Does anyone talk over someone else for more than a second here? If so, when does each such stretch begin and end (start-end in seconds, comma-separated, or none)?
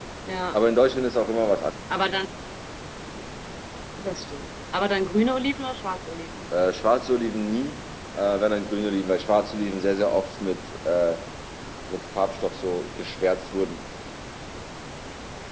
none